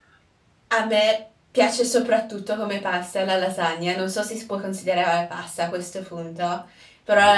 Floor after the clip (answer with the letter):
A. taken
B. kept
B